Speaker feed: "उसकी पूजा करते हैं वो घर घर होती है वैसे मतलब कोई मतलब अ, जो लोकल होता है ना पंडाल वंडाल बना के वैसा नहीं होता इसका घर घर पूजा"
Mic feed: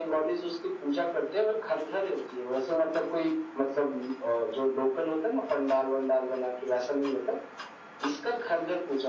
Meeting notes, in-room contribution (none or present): none